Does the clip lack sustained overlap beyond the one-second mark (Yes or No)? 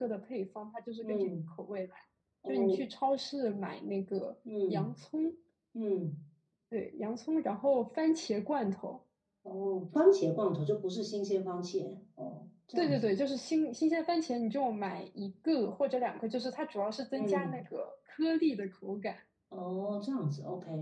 Yes